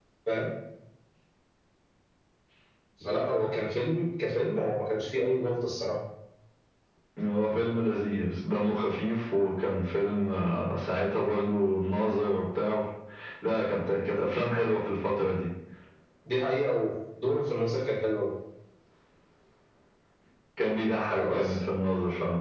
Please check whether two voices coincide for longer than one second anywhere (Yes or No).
No